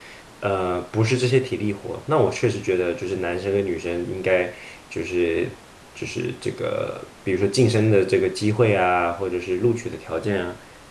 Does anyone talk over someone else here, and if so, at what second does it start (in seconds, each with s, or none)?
none